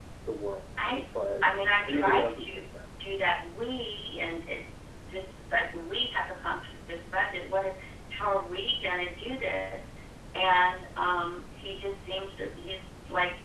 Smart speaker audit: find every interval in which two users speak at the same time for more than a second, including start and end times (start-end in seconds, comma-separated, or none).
1.4-2.6